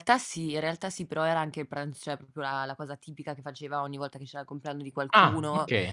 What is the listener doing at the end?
listening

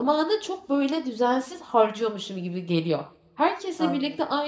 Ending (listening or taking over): listening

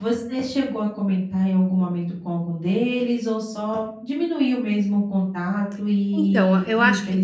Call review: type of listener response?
taking over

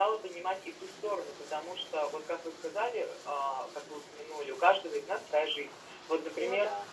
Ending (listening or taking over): listening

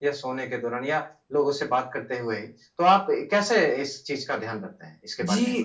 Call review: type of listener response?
taking over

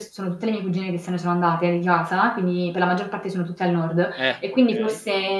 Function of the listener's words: listening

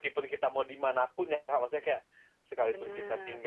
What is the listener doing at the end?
listening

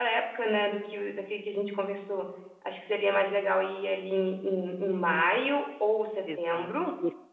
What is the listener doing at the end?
taking over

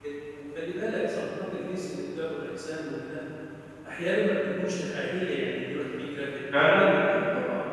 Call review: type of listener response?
listening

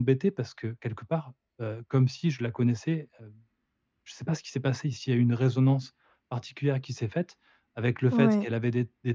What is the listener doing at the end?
listening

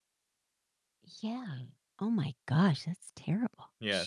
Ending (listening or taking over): taking over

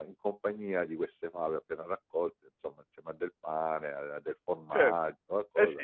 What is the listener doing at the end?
taking over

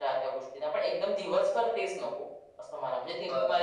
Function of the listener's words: taking over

